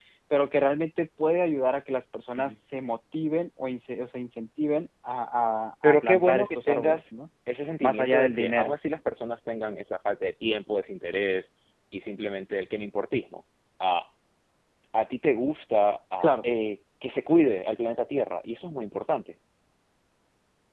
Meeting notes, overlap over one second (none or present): present